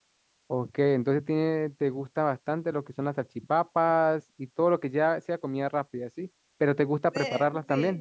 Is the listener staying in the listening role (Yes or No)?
Yes